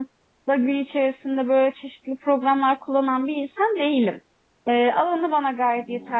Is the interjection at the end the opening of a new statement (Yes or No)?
No